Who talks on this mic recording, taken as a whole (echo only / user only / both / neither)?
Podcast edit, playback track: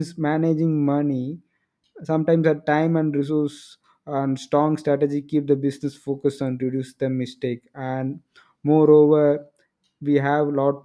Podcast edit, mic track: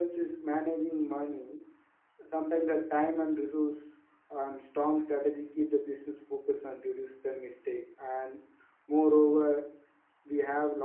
echo only